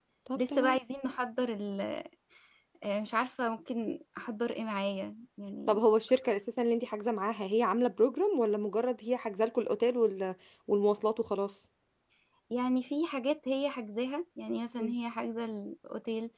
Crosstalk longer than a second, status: none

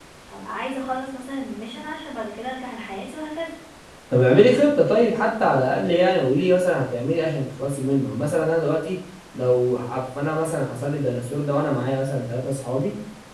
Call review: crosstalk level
none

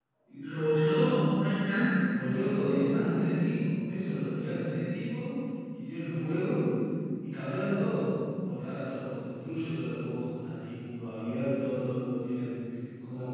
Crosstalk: none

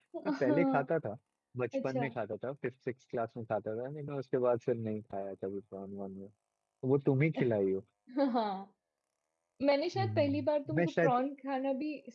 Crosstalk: present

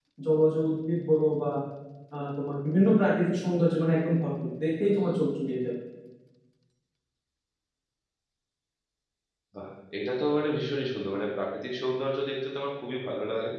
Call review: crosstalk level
none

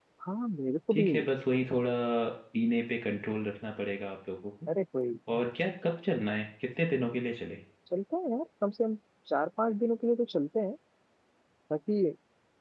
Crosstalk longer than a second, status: none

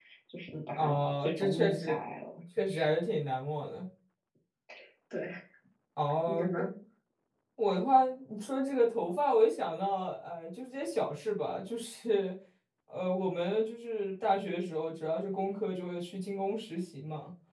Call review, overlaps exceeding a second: present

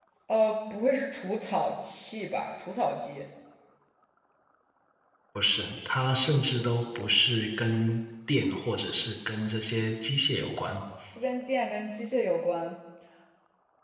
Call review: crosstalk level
none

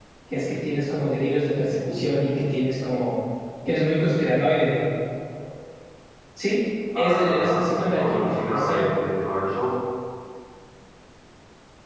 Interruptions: present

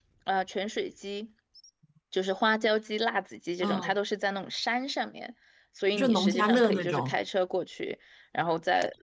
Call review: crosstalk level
present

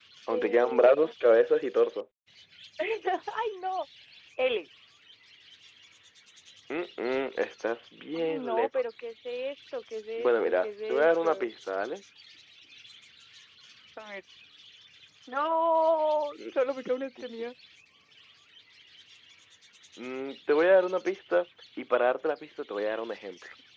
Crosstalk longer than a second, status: present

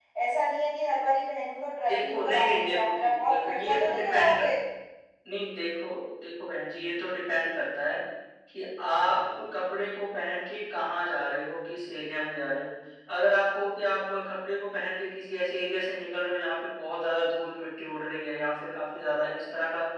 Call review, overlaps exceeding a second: present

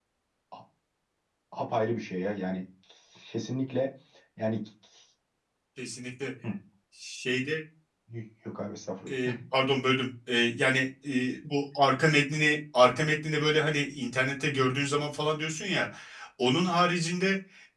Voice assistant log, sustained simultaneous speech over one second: none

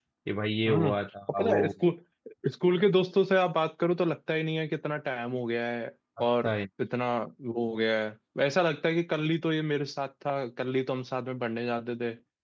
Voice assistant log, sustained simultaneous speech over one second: none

